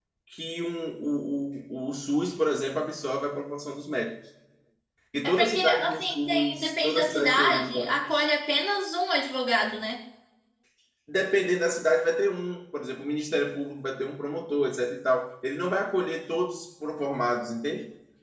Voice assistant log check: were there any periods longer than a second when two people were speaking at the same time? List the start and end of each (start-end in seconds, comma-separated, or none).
5.2-8.0